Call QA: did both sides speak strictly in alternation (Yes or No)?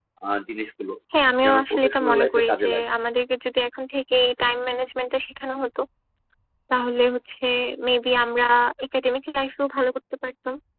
No